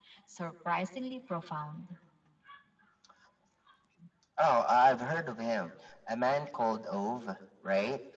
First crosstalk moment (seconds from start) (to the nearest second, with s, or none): none